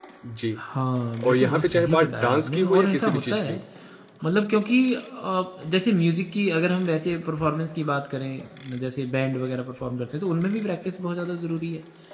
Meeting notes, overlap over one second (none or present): present